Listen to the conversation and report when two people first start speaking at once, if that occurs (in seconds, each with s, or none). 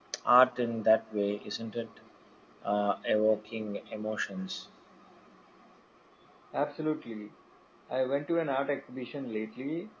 none